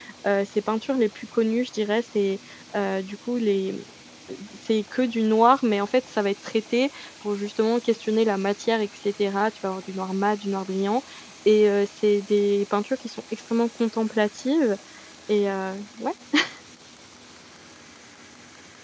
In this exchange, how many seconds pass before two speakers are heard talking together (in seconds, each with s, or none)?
none